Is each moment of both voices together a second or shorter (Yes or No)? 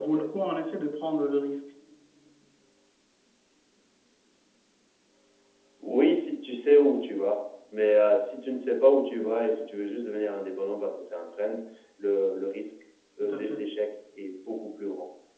Yes